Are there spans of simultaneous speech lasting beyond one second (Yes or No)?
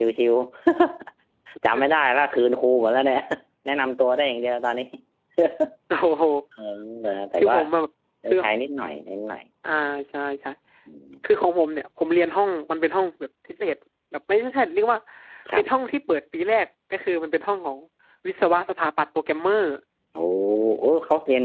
No